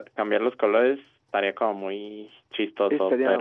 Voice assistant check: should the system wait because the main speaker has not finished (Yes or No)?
No